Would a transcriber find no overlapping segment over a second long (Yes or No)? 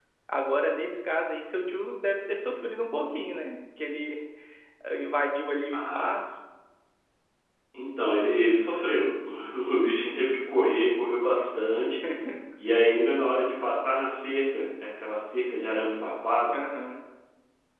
Yes